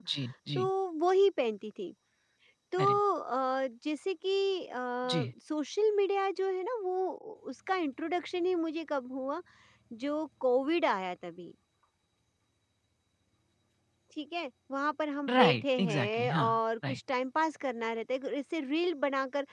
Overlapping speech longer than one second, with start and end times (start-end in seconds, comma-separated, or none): 15.3-16.5